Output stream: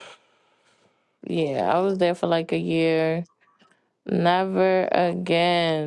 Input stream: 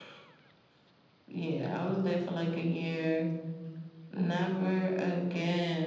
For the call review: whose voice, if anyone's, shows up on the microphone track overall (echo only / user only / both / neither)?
echo only